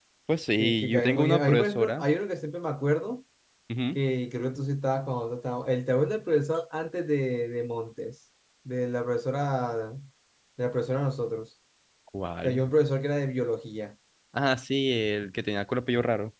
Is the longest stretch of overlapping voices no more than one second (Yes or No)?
No